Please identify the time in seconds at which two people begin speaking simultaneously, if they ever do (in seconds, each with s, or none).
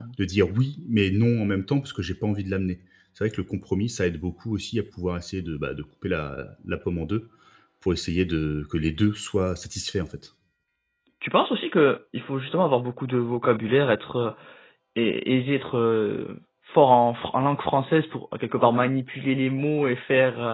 none